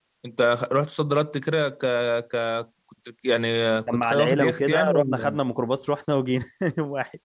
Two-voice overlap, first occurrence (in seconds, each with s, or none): 3.9 s